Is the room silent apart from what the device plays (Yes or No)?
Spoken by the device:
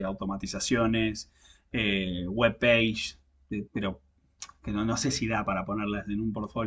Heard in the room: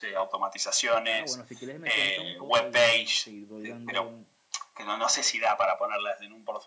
No